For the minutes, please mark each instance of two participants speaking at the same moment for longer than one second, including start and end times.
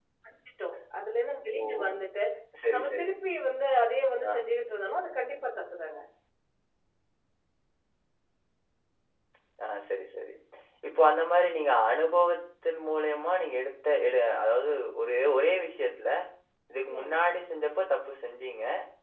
none

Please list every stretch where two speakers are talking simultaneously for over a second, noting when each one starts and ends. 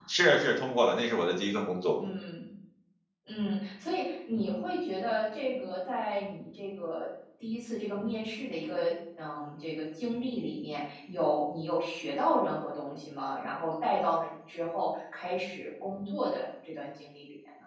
none

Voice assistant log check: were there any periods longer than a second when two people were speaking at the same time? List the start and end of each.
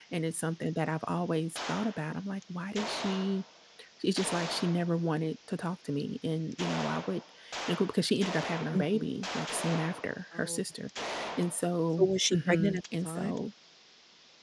12.0-13.4

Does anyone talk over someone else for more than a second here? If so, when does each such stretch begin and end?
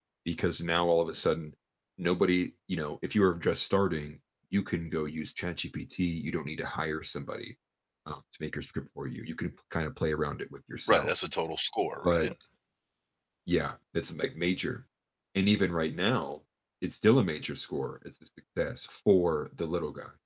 none

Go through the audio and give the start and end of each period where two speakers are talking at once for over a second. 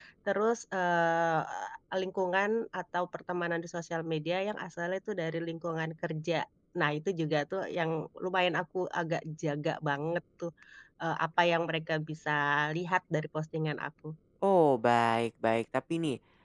none

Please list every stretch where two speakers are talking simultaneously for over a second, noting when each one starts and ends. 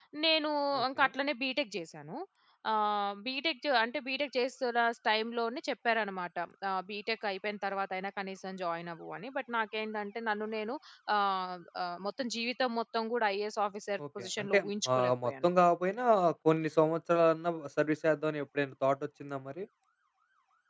14.2-15.5

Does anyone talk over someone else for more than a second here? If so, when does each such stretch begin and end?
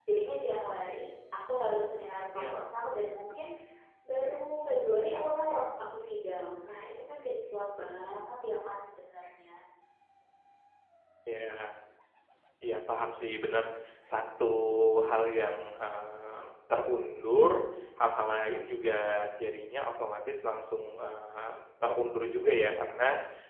none

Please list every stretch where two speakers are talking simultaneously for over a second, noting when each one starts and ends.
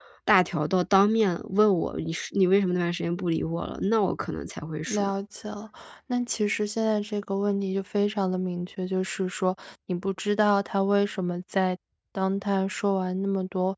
none

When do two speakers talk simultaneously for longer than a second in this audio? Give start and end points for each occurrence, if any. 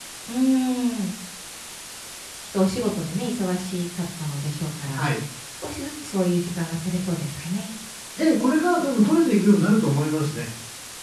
none

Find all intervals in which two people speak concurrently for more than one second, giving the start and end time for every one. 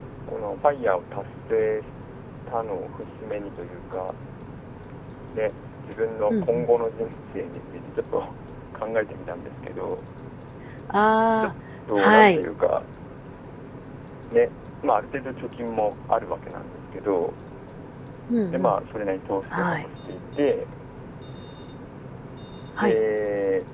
none

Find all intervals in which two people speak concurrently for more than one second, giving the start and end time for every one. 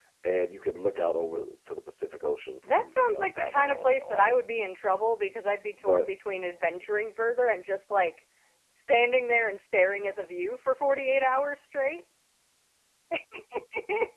2.7-4.3

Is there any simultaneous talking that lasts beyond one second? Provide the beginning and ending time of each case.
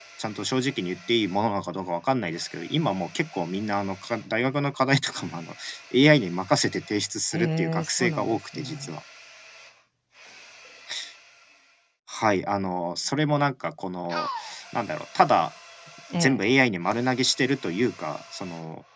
7.3-8.9

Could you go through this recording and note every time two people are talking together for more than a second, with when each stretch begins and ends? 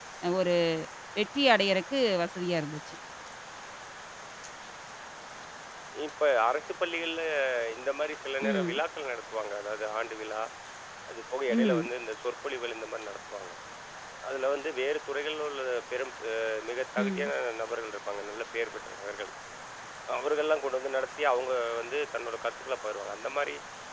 none

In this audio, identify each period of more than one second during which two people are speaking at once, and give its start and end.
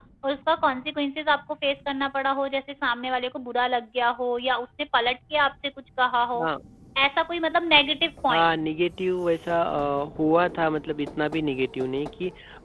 none

